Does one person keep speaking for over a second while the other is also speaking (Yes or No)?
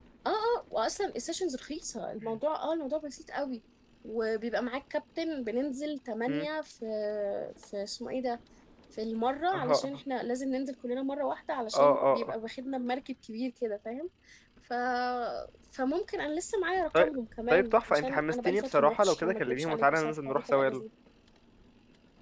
Yes